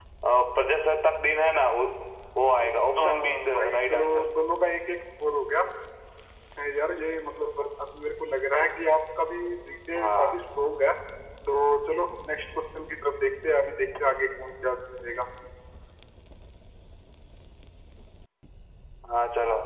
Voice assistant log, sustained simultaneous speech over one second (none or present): present